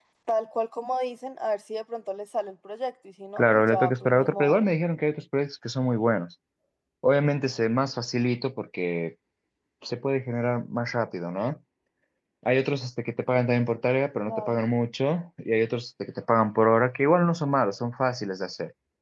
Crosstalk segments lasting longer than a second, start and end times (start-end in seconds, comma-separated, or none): 3.4-4.7